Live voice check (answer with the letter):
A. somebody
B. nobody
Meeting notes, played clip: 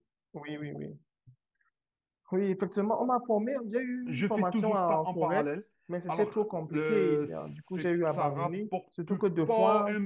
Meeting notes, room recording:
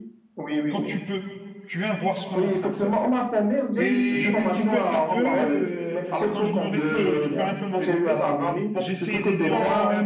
A